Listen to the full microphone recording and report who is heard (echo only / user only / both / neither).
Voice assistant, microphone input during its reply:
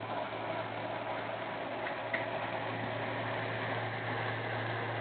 neither